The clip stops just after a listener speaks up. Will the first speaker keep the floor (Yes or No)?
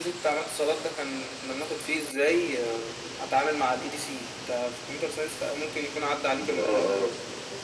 No